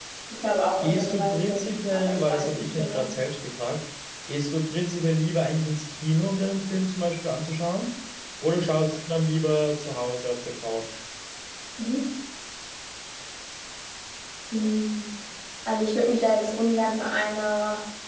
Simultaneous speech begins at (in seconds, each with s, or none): 0.8 s